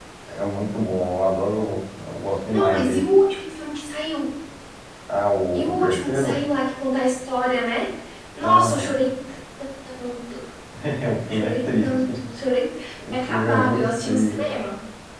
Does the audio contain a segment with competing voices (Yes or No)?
Yes